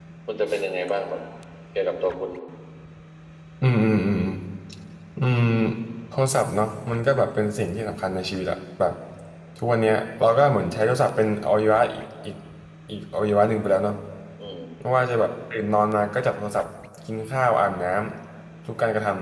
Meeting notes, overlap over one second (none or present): none